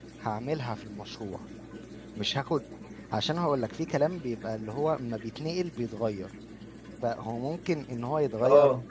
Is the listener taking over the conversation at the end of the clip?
No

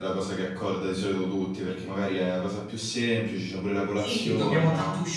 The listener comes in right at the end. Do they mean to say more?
Yes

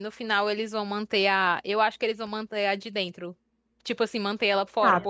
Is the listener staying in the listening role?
Yes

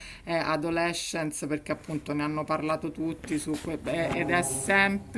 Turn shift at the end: No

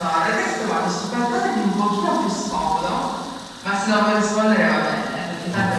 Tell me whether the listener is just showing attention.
Yes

